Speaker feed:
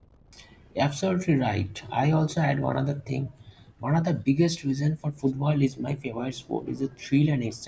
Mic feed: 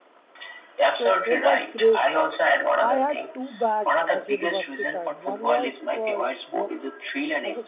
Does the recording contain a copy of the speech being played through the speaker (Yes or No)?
Yes